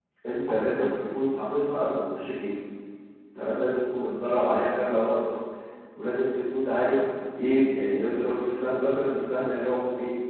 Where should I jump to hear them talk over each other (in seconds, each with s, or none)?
none